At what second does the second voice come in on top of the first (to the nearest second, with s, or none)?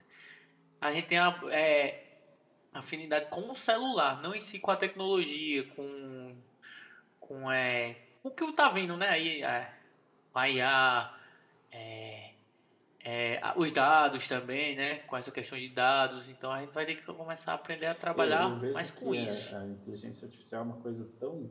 18 s